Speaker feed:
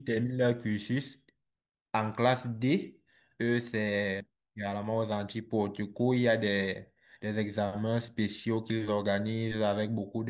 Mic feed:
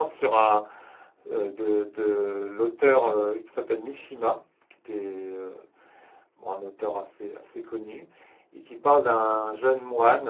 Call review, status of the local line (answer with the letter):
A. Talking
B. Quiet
A